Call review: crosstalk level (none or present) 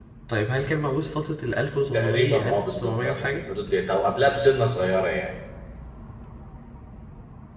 present